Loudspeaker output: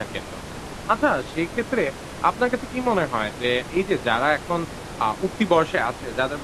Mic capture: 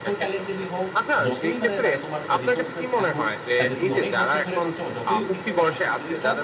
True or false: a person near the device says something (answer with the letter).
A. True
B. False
A